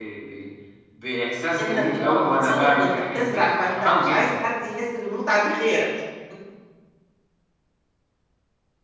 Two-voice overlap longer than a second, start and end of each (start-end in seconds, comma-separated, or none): 1.6-4.4